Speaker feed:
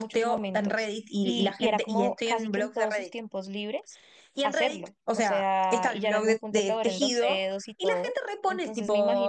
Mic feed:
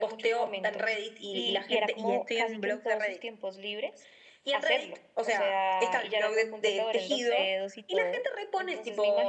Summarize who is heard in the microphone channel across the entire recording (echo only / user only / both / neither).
echo only